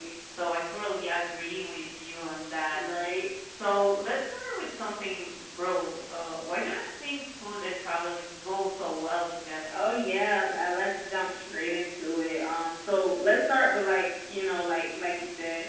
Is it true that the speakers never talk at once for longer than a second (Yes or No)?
Yes